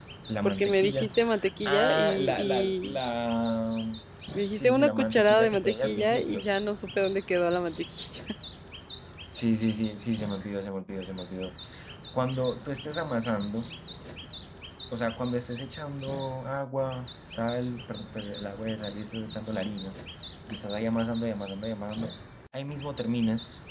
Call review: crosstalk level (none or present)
present